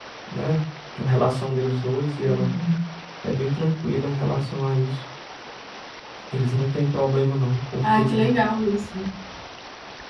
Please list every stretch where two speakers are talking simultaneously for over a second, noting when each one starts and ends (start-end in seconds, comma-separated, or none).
none